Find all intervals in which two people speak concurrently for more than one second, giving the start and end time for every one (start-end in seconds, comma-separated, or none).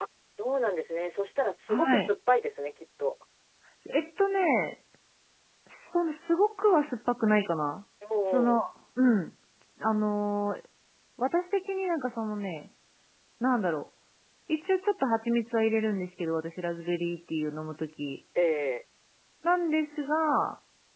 none